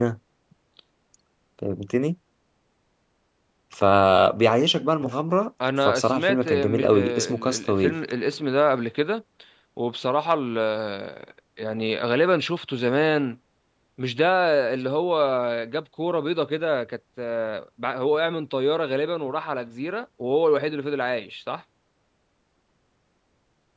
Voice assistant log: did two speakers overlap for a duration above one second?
Yes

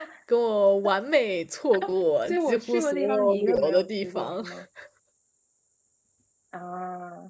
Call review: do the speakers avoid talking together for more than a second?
No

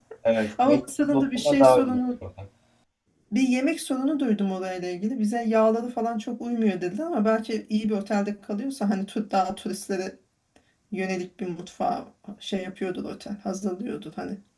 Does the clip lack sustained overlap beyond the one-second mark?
No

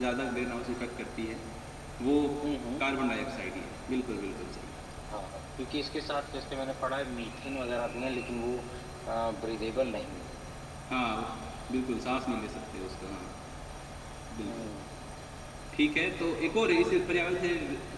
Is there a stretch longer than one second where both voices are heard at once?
No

